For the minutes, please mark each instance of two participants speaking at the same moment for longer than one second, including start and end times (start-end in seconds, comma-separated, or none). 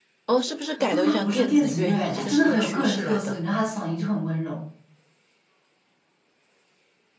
0.9-3.4